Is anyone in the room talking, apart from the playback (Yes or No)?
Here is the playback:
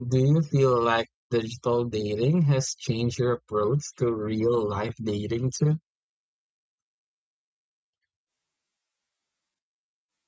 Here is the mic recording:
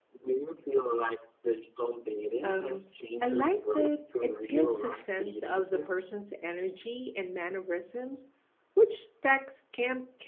Yes